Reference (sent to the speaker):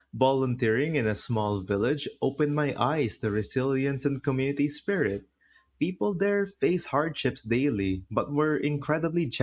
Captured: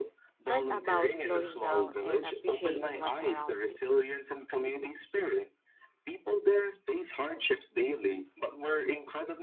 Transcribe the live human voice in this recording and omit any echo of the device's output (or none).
but about slowing down and appreciating what's around you.